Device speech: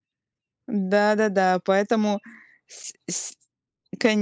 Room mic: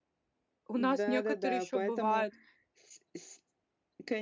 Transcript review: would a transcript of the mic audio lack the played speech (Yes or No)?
No